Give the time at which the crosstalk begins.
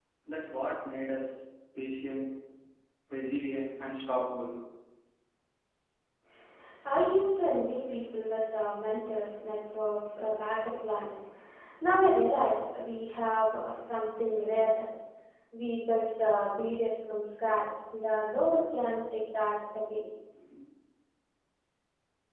none

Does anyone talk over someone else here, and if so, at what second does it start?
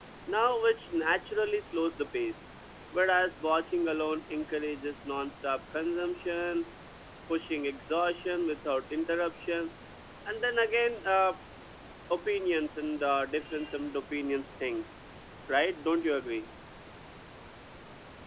none

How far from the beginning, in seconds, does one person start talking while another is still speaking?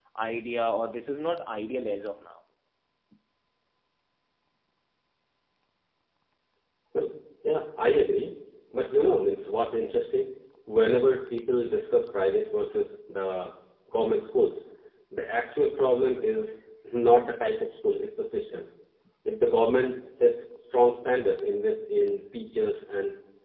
none

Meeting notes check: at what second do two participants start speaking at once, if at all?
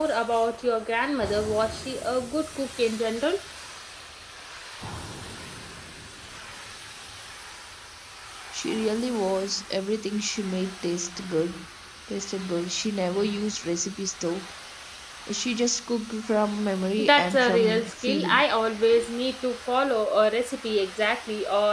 17.0 s

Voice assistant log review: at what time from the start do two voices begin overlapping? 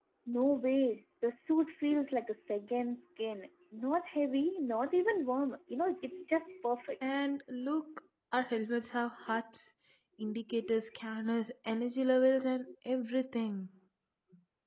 none

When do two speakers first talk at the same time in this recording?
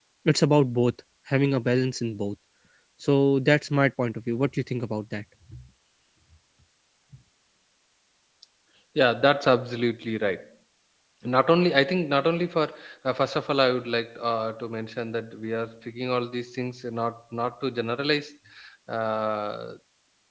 none

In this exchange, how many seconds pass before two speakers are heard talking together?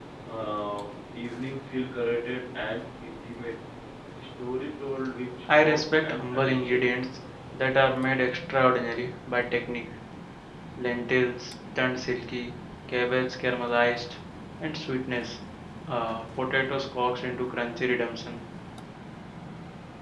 5.5 s

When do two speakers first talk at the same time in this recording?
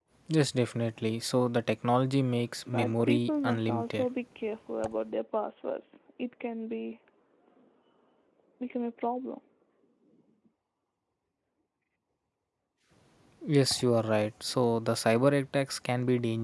2.7 s

